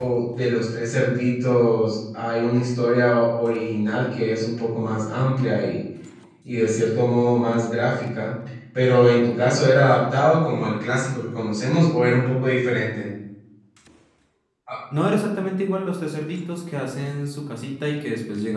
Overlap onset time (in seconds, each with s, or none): none